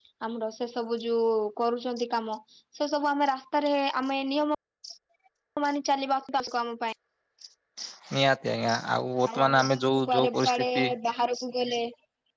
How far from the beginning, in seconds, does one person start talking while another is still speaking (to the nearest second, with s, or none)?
9 s